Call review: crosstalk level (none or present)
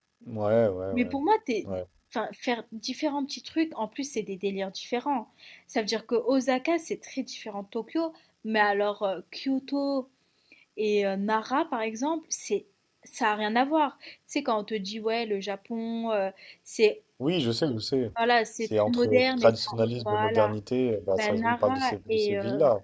present